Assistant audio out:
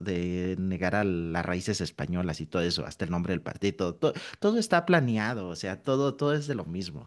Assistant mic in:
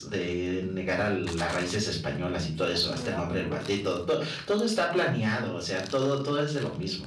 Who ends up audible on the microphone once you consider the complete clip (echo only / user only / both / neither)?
both